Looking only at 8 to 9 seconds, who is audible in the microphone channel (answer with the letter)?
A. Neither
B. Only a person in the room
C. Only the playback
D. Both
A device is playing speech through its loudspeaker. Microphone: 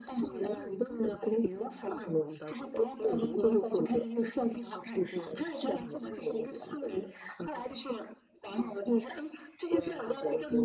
C